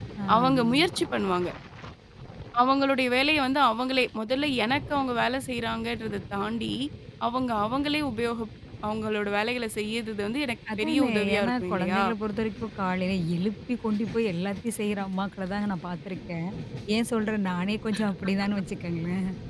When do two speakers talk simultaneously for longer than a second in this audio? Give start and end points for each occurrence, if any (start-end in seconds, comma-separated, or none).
10.8-12.0